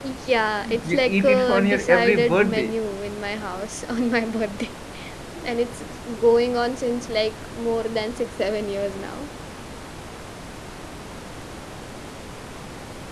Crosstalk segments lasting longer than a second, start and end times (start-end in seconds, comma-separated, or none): 0.8-2.7